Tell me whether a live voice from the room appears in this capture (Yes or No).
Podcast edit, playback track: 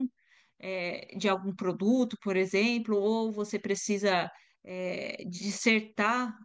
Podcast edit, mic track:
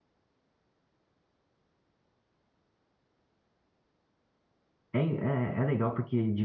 Yes